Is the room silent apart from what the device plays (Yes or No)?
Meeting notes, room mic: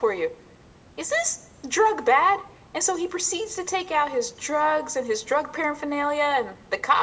Yes